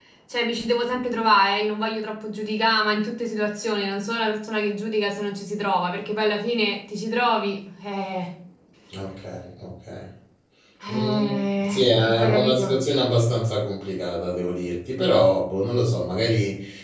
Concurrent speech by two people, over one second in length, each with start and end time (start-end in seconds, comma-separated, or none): 10.9-12.8